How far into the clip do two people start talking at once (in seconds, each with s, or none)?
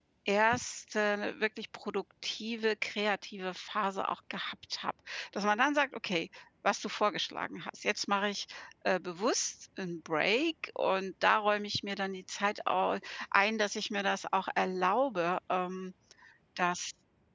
none